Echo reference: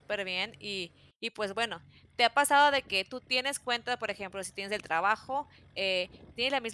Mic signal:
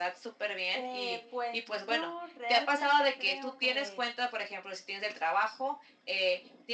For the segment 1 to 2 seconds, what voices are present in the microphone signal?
both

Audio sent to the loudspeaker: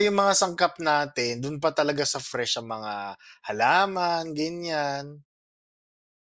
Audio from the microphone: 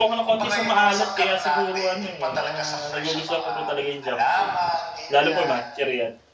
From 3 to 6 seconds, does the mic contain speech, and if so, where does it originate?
both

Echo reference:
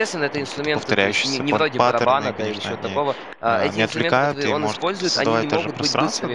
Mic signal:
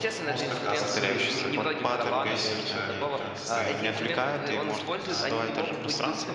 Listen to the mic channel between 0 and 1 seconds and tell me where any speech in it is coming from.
both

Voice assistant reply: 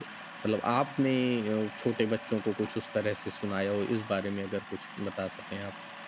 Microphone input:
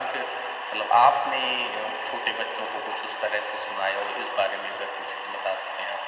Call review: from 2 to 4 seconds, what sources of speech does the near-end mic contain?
echo only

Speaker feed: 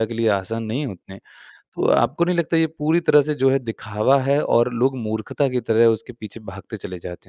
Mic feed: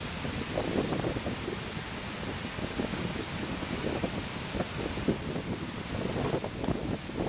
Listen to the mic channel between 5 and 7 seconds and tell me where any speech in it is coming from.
neither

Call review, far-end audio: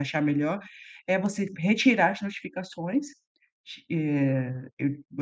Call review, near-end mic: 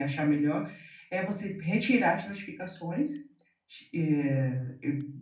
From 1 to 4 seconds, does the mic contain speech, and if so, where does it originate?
echo only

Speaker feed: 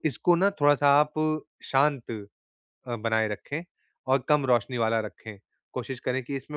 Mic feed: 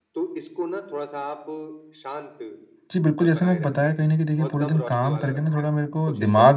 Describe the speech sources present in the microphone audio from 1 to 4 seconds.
both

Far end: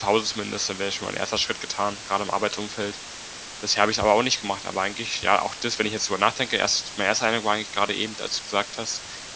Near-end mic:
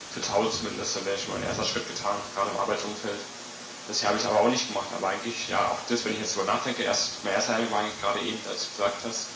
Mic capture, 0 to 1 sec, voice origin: echo only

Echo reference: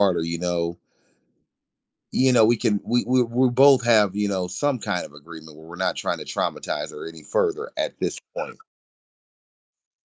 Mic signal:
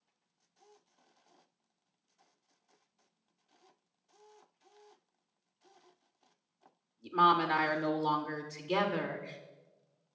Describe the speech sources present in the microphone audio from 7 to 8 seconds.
user only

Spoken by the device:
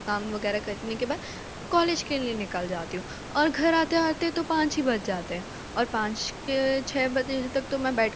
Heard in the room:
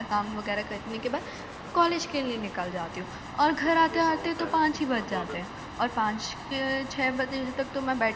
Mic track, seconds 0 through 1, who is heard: echo only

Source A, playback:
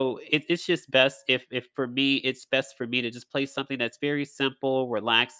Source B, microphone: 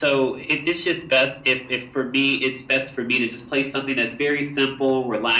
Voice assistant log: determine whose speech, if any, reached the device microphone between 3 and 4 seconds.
echo only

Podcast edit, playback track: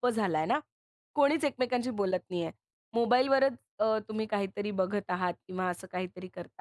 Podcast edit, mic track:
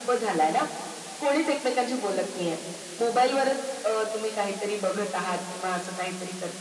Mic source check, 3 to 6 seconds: echo only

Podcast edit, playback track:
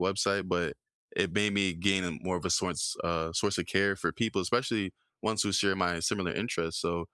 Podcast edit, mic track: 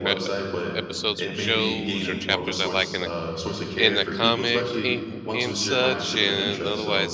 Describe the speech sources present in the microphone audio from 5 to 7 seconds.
both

